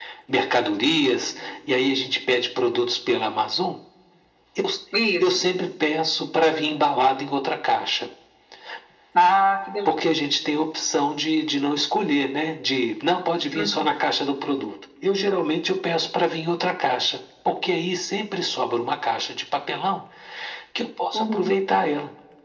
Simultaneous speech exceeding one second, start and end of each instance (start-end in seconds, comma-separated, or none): none